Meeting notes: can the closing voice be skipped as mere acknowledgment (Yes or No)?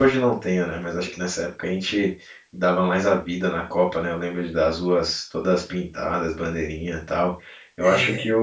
Yes